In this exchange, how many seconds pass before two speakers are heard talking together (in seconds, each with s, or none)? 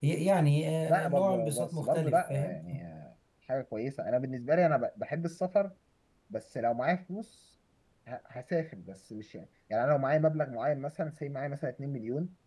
0.9 s